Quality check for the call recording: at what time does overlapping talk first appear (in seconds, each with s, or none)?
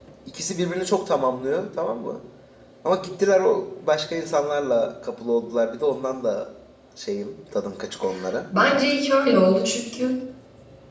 none